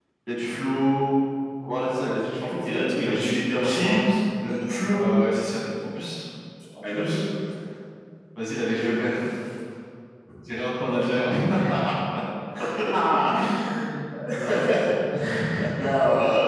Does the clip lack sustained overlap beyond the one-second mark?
No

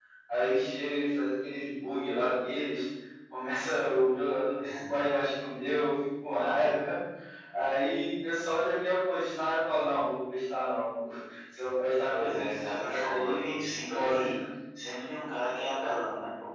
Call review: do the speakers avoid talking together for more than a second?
No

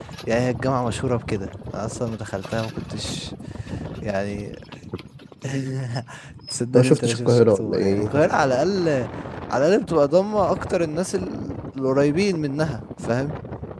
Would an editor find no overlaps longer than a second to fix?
No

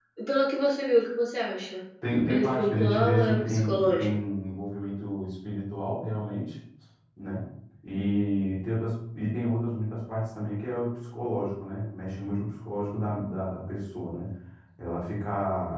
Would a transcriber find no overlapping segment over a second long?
No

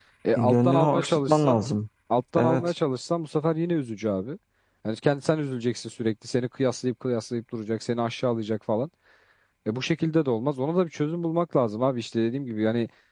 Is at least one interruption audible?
Yes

